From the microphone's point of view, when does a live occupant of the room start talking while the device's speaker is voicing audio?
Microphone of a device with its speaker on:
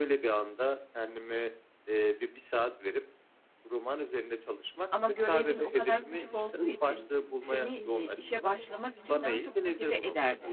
4.9 s

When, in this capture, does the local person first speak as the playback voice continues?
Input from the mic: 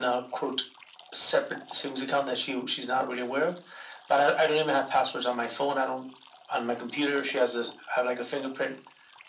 none

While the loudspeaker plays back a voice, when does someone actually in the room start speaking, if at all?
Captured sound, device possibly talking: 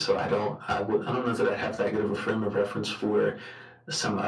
none

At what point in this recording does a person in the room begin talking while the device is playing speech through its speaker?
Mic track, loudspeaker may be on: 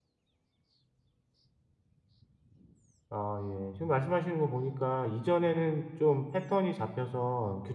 3.1 s

